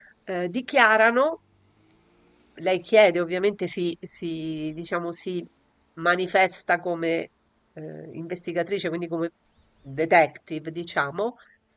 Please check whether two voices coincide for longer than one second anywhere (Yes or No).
No